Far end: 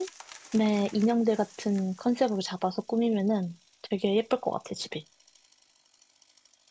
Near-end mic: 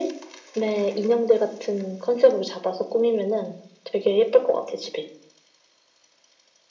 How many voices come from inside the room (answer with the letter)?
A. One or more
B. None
B